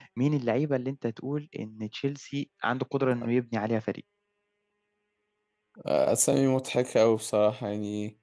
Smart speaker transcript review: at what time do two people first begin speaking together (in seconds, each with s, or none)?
none